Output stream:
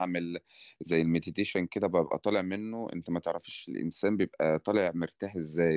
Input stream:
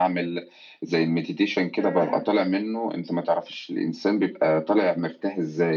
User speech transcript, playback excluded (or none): م- م.